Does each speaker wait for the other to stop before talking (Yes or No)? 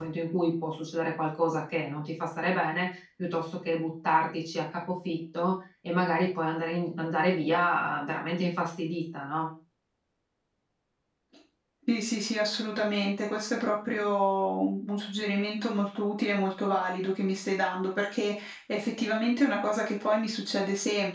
Yes